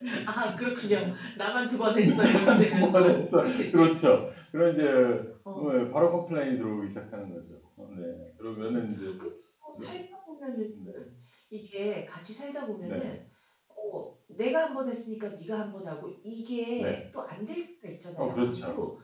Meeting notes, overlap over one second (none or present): present